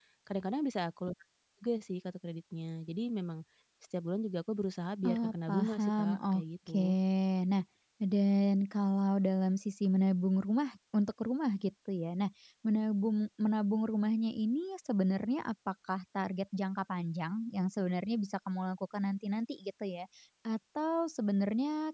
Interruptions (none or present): present